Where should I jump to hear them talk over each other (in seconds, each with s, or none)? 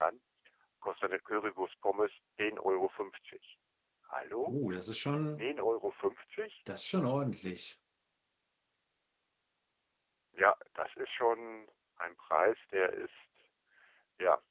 none